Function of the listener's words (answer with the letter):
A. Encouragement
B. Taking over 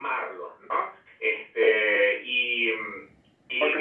B